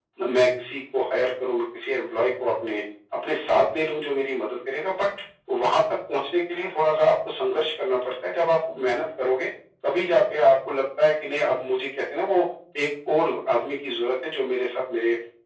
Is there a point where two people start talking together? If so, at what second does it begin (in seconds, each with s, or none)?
none